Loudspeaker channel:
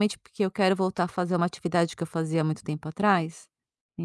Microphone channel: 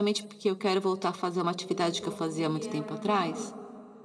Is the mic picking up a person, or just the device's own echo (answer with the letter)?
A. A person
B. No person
A